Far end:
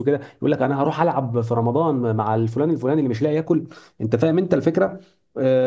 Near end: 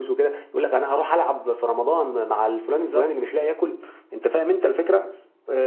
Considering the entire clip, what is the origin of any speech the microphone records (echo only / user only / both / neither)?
both